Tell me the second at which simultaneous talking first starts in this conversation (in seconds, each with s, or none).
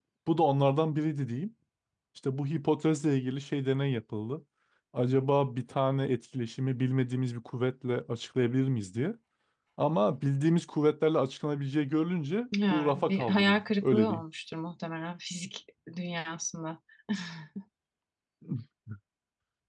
12.5 s